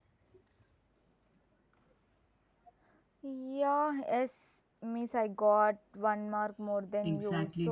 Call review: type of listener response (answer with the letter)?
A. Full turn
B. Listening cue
A